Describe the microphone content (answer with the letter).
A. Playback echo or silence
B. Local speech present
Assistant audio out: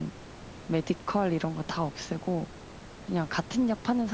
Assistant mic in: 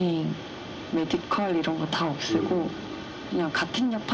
B